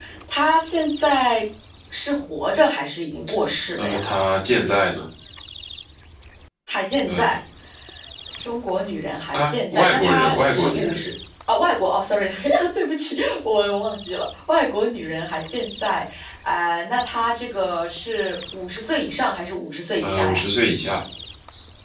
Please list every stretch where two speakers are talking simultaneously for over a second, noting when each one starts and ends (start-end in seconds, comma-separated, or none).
9.3-11.0